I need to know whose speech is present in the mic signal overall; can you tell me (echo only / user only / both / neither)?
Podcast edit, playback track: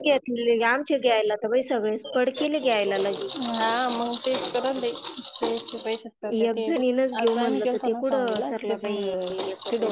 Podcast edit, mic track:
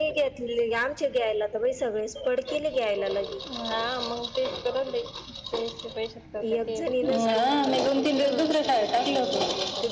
both